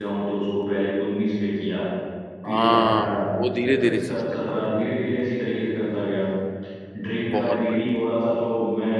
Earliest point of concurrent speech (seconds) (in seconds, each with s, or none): 2.5 s